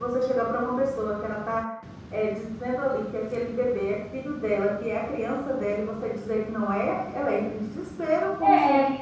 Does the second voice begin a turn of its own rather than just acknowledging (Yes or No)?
Yes